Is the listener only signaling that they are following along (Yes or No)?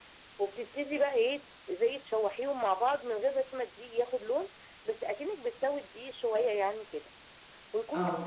Yes